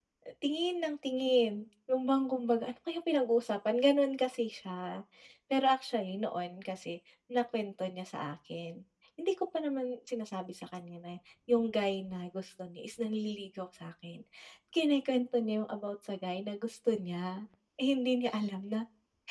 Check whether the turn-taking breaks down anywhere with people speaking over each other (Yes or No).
No